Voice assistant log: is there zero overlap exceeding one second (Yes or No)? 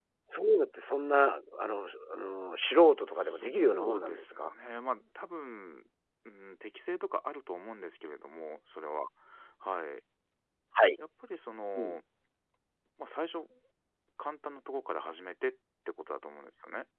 No